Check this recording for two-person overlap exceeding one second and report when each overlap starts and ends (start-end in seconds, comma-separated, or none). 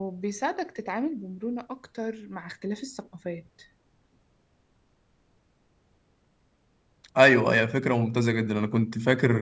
none